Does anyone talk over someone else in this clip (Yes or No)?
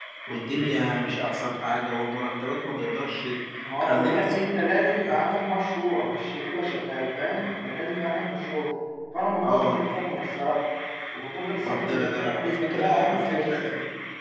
Yes